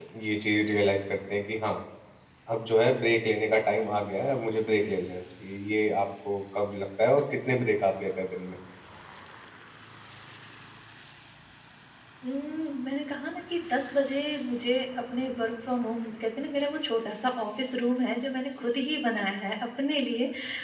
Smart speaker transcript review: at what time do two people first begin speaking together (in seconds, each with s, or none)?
none